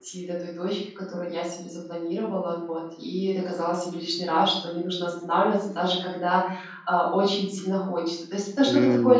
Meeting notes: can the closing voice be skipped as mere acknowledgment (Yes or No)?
Yes